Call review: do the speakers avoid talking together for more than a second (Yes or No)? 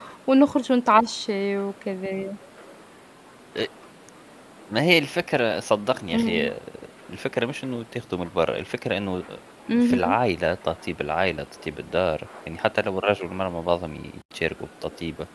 Yes